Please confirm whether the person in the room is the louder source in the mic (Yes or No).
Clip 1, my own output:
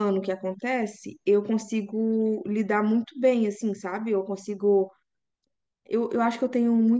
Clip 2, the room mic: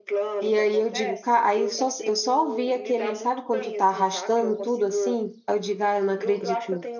Yes